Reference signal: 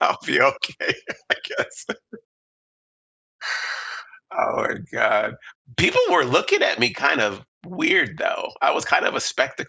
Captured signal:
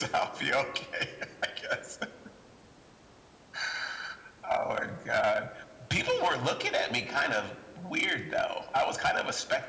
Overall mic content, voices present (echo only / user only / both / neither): echo only